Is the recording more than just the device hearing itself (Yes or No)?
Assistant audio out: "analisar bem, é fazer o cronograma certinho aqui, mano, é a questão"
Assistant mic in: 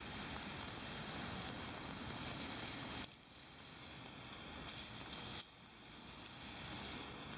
No